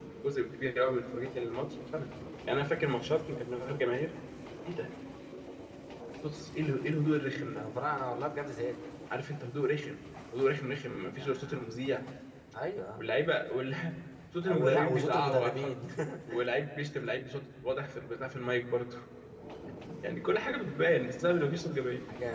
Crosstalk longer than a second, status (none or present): present